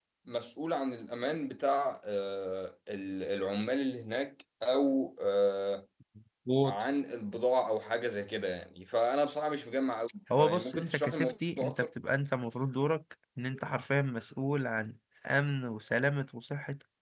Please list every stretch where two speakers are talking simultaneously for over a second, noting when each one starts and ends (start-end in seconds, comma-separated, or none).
10.4-11.9